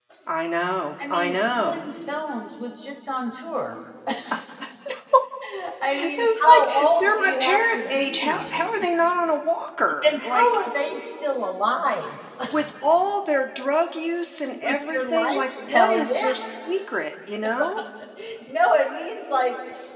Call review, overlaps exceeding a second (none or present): present